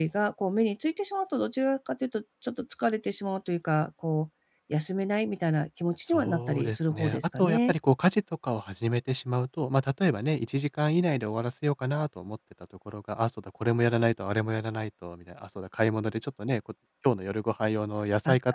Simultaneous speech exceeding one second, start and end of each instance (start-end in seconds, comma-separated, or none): 6.1-7.8